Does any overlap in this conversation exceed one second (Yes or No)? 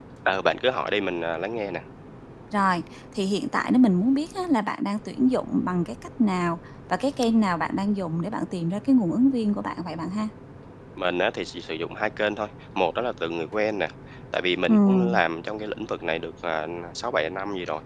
No